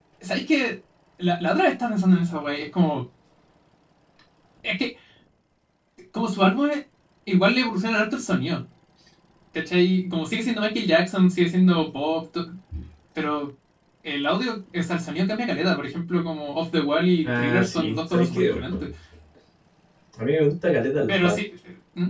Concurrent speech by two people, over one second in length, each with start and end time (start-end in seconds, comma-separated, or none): 17.2-18.6